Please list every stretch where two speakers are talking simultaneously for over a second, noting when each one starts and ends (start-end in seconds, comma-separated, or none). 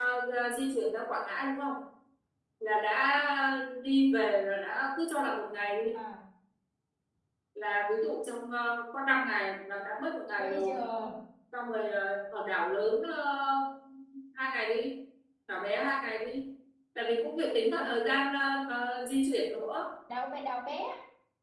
none